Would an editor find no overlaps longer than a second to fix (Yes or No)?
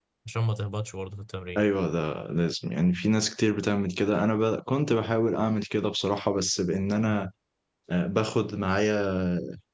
Yes